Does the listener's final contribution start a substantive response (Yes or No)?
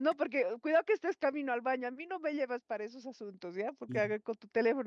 No